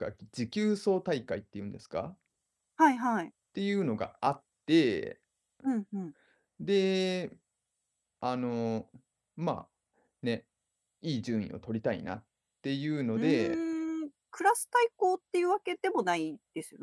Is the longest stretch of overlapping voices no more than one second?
Yes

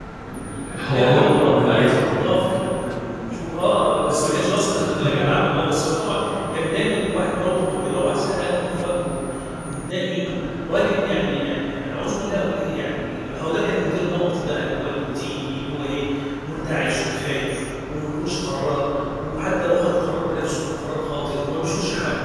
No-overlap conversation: No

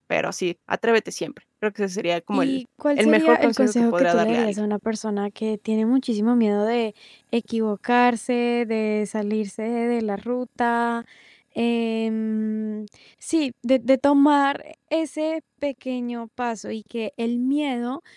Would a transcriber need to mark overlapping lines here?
Yes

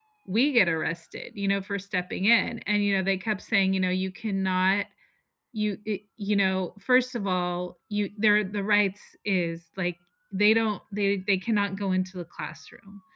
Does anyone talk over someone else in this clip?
No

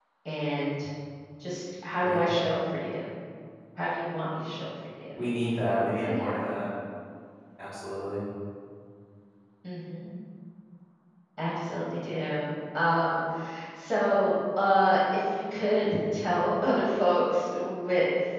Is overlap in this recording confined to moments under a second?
Yes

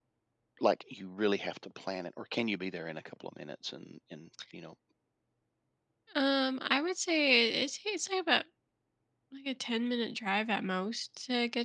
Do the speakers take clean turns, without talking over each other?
Yes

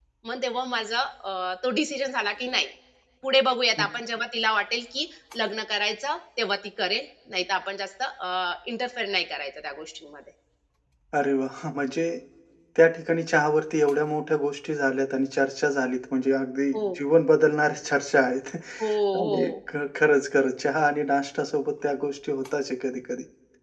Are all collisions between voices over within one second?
Yes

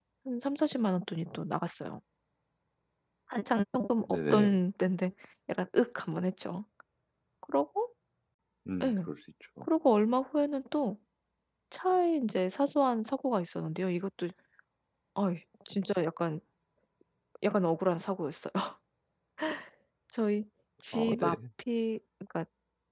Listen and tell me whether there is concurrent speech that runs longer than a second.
No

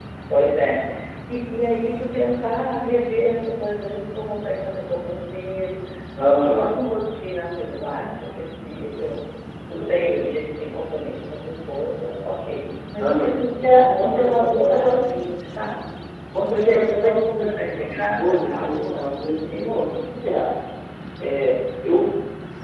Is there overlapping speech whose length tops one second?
Yes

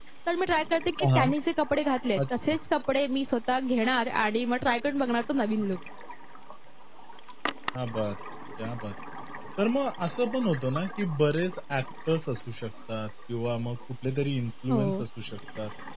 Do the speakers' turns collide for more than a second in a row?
No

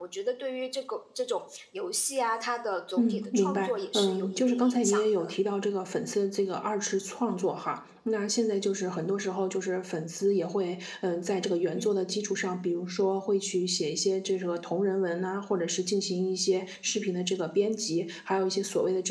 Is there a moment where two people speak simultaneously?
Yes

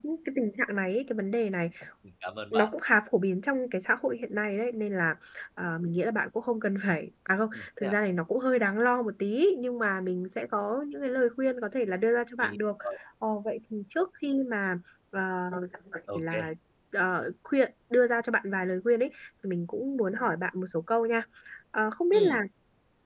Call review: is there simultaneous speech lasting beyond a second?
No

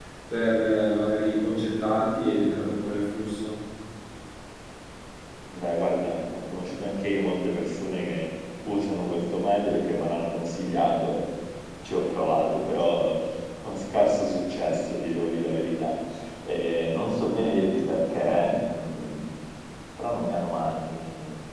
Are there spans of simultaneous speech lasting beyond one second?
No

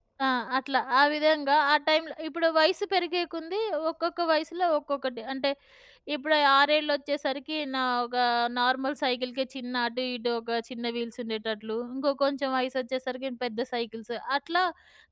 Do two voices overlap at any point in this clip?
No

